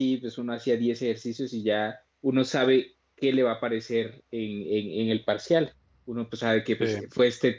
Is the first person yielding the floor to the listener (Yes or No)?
No